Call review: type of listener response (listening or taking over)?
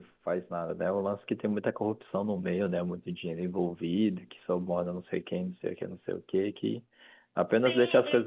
taking over